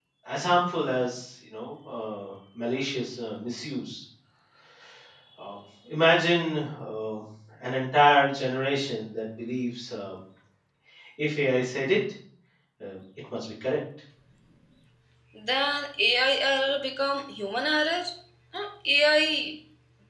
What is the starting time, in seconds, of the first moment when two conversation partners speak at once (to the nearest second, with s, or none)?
none